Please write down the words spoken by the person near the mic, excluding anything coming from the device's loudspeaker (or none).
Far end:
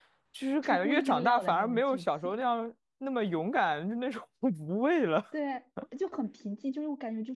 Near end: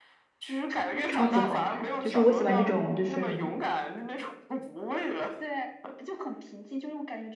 超级好看，就是我喜欢这种，就是，